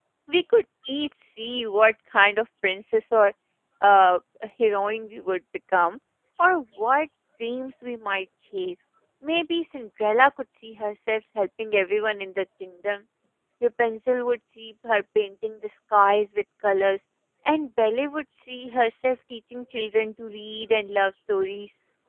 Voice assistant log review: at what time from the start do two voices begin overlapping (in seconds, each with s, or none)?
none